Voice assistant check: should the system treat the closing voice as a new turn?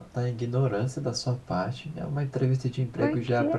No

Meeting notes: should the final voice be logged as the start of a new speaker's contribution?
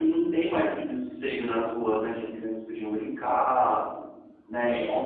No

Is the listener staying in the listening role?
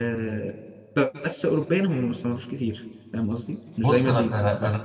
No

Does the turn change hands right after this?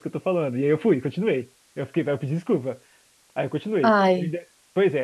No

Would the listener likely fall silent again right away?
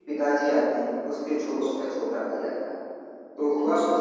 Yes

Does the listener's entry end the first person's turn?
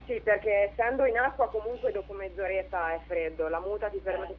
No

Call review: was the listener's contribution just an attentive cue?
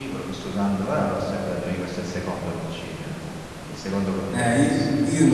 No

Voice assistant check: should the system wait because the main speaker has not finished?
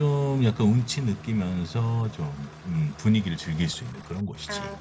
No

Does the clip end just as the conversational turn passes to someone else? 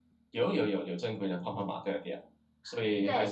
Yes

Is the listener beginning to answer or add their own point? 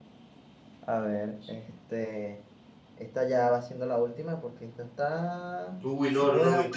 Yes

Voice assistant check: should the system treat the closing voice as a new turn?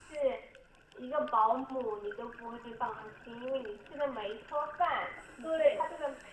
No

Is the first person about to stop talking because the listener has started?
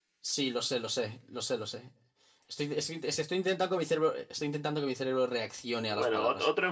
Yes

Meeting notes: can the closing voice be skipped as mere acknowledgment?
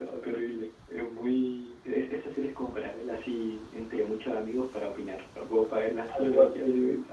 No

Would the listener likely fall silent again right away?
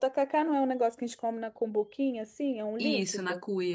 No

